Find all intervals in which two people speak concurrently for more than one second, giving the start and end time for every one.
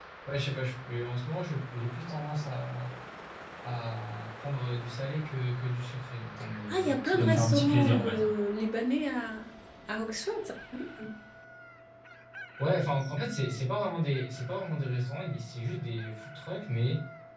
6.7-8.3

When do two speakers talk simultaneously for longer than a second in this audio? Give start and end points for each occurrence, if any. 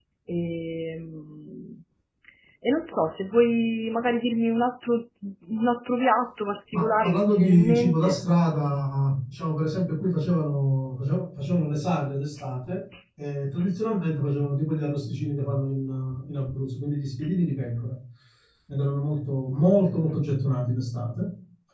6.7-8.2

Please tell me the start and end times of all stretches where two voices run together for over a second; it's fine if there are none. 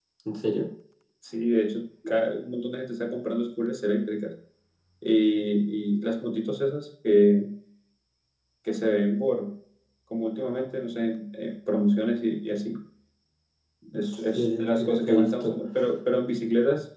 14.3-15.6

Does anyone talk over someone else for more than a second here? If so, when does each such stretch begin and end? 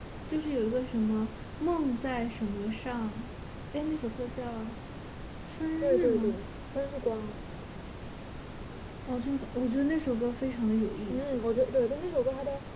none

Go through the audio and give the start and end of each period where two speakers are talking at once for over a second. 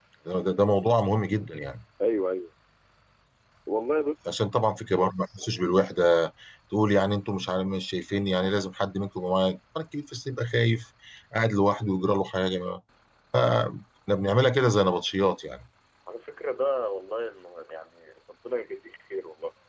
none

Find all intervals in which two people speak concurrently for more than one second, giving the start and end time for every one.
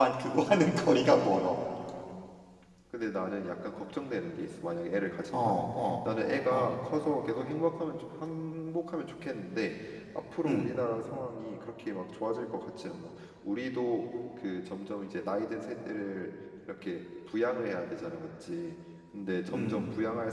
none

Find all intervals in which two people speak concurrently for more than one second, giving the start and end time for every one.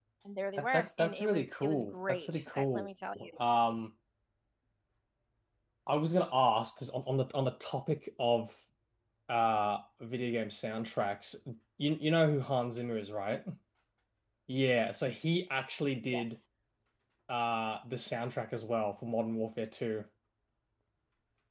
0.6-2.9

